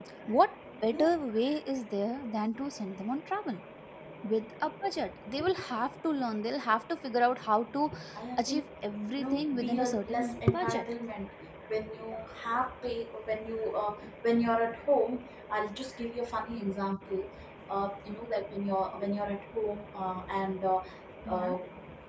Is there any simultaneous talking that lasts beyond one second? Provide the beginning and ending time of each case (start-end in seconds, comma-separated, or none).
9.2-10.8